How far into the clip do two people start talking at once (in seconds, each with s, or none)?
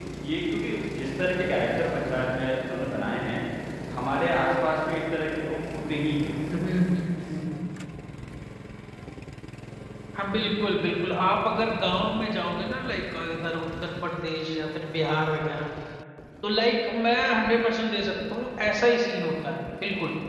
none